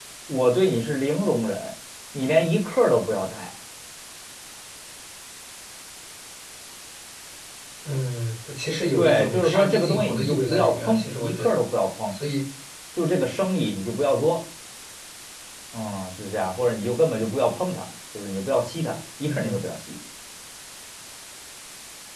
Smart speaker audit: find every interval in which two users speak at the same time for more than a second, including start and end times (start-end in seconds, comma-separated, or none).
9.0-11.6